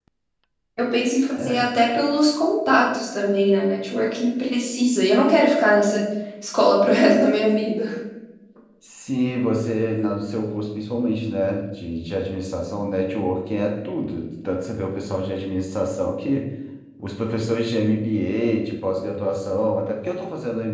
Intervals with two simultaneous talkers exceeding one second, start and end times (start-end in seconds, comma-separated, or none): none